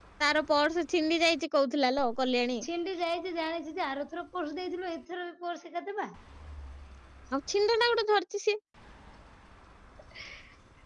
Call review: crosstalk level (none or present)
none